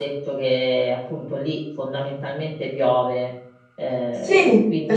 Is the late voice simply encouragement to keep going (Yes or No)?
No